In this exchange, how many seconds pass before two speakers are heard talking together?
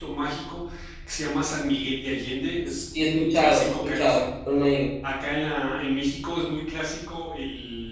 2.7 s

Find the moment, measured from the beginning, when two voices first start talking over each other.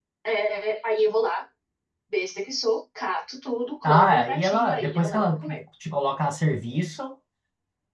3.8 s

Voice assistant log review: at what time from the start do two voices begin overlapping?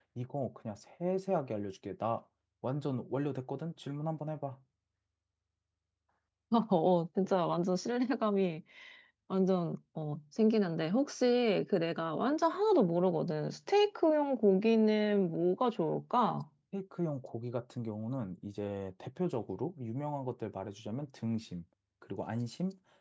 none

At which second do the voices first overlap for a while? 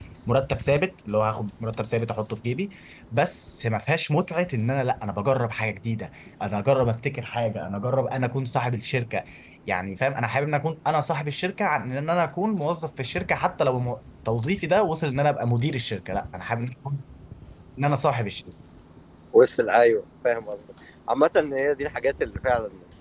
none

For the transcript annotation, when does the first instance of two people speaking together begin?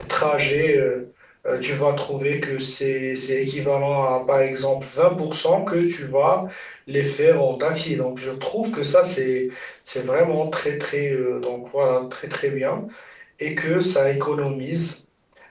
none

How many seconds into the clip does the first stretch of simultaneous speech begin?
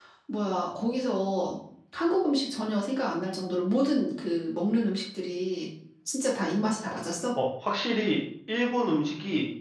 none

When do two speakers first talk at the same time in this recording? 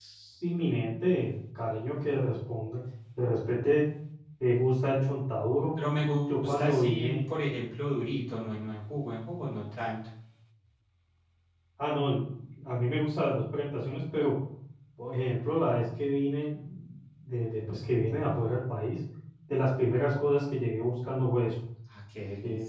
6.0 s

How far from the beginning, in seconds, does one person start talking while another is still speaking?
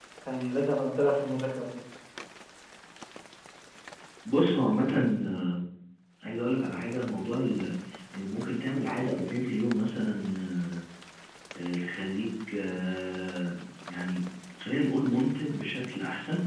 none

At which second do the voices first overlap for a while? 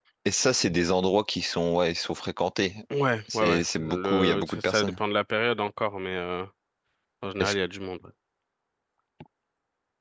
3.3 s

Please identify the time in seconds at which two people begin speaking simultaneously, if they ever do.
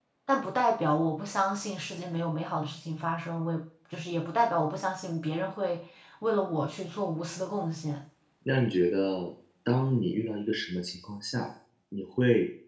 none

